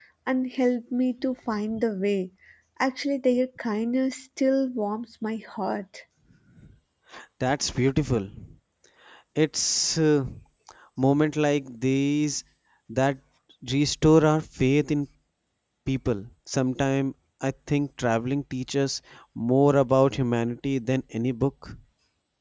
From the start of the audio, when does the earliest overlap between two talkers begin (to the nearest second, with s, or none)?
none